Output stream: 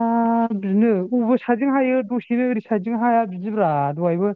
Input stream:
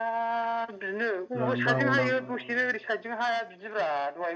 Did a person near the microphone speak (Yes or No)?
Yes